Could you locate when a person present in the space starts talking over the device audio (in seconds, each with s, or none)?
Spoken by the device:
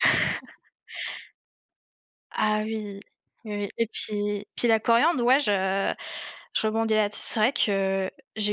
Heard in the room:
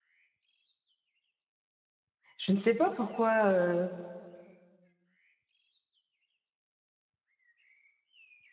2.4 s